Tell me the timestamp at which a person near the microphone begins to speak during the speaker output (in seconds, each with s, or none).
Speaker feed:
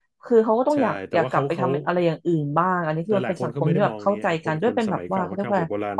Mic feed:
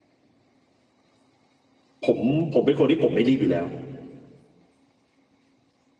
2.0 s